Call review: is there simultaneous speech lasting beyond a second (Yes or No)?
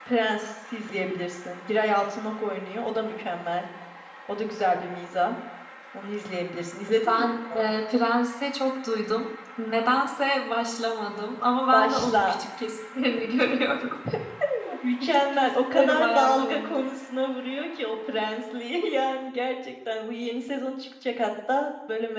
Yes